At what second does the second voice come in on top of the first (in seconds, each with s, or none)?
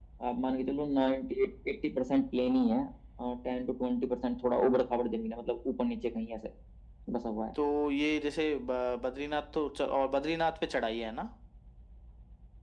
none